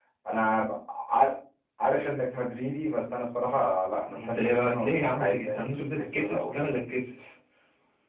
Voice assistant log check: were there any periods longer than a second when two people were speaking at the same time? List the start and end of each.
4.2-6.7

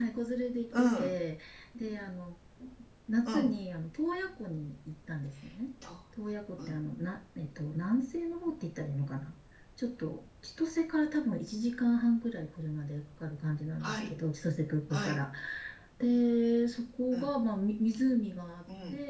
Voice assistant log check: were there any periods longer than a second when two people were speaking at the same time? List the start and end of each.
none

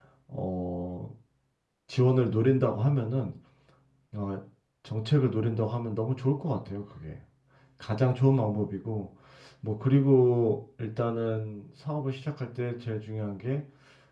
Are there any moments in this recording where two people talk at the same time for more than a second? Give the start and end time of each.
none

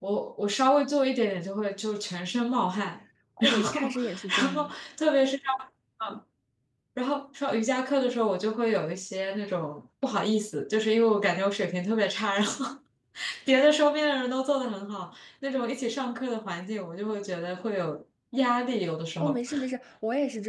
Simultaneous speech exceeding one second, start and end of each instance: 3.4-4.7

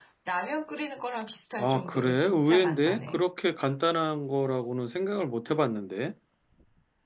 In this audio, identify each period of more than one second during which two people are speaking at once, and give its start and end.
1.6-3.2

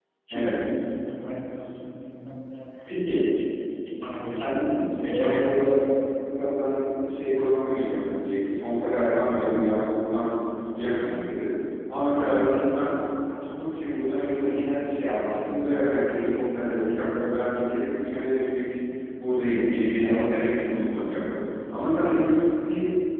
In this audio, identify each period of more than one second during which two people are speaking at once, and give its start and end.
4.2-5.7

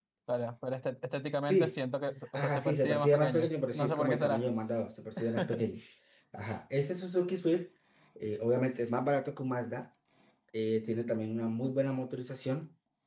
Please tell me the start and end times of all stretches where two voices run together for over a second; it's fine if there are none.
2.4-4.5

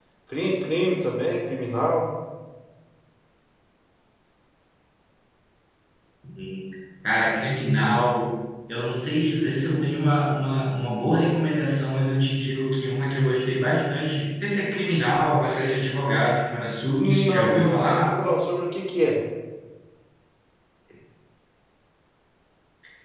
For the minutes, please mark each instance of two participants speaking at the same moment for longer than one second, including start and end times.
17.0-18.2

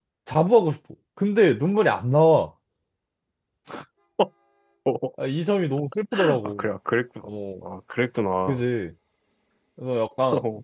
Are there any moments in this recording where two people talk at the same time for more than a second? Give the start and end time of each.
none

